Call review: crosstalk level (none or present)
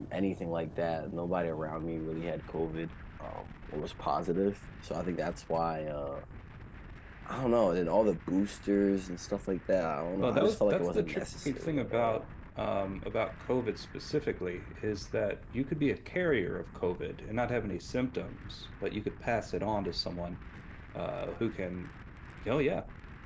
present